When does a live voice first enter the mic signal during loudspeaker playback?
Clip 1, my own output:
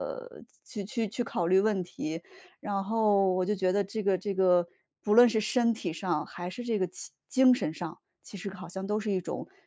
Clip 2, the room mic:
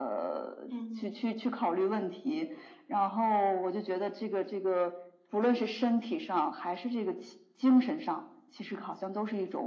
0.7 s

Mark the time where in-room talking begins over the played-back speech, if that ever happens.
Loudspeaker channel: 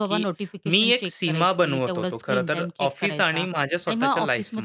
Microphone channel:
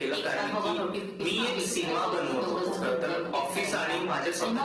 1.4 s

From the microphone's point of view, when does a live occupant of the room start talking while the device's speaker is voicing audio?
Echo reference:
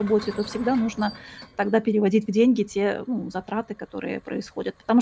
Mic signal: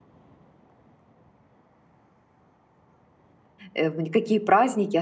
3.7 s

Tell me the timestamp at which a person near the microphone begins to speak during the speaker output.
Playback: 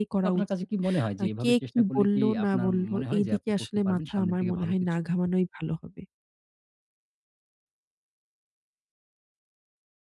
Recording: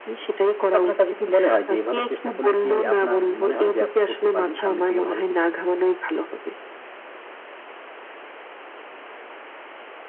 none

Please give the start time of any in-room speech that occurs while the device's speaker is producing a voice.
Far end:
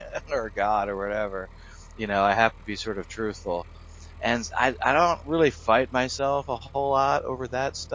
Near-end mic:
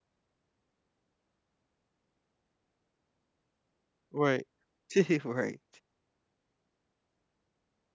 4.1 s

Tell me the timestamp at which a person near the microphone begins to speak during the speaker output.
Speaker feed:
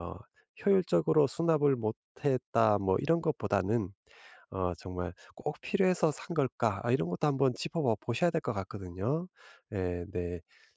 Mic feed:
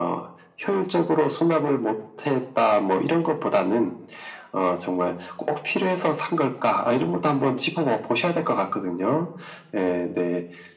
none

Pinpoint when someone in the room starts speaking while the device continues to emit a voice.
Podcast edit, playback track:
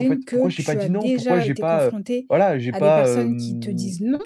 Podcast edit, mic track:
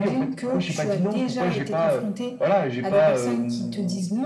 none

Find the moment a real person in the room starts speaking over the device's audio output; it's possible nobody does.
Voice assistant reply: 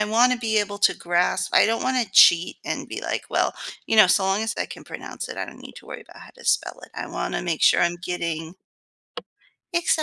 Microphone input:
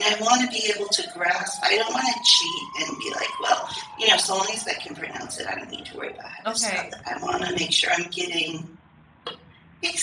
6.4 s

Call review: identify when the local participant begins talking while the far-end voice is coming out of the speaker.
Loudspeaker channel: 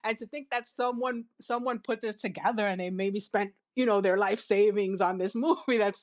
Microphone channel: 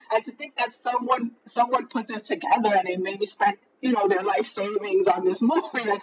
none

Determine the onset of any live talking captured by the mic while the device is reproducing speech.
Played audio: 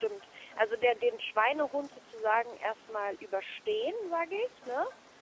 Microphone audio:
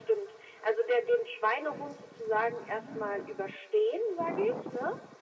none

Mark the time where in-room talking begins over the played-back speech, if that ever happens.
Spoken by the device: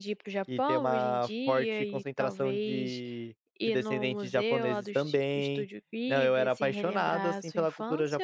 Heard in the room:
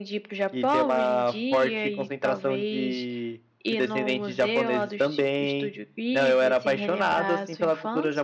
none

